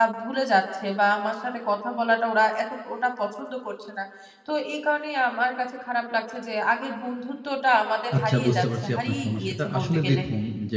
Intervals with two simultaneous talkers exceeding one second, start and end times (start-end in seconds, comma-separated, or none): 8.2-10.2